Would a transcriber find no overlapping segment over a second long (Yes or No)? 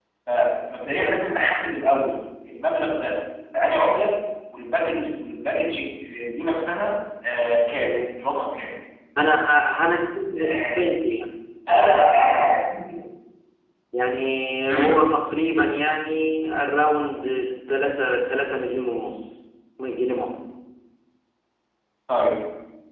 Yes